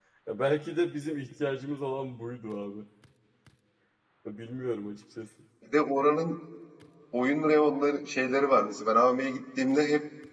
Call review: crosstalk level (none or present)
none